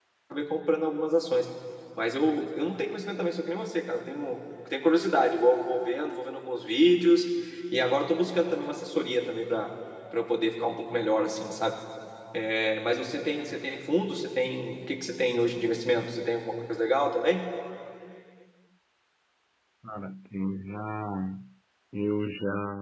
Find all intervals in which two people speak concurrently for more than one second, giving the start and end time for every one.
none

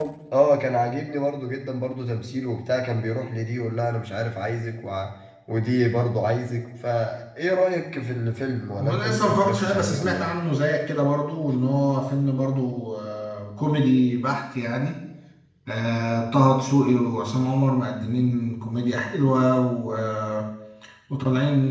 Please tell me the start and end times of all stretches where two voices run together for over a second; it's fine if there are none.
8.8-10.3

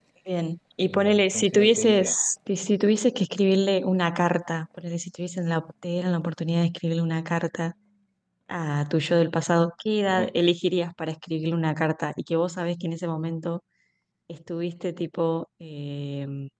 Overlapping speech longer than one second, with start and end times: 0.8-2.1

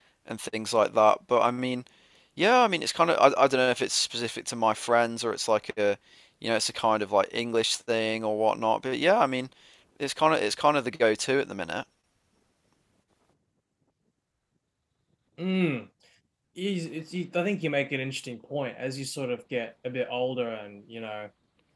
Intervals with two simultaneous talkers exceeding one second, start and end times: none

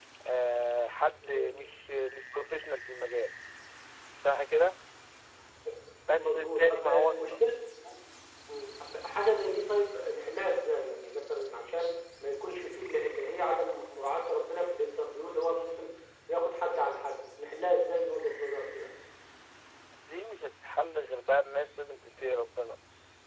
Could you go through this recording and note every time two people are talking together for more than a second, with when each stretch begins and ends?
6.2-7.4

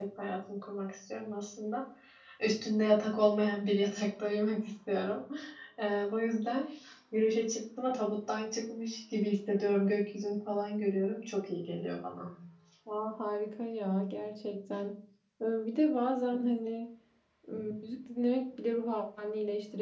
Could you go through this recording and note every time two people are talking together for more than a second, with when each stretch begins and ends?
none

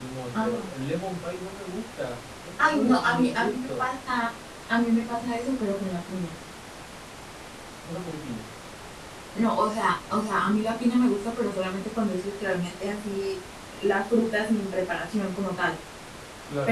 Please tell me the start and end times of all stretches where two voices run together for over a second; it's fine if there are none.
2.6-3.9

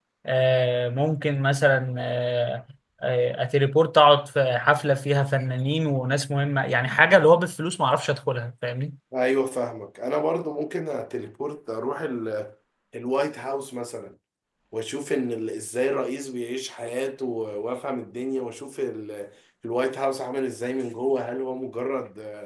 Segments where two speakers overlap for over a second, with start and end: none

